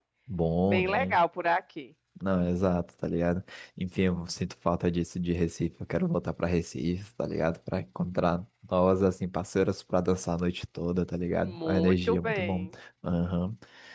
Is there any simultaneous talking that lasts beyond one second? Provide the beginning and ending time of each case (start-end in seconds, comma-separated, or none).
11.4-12.7